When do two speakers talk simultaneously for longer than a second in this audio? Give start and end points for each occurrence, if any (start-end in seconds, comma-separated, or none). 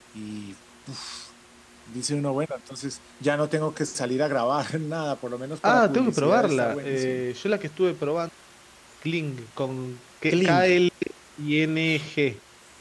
5.7-7.2